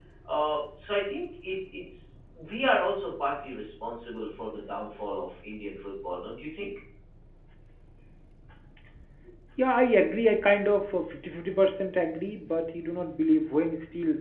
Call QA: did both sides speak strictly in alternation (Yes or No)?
Yes